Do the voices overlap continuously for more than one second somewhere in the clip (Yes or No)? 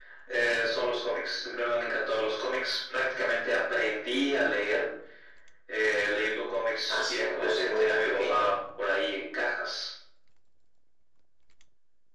Yes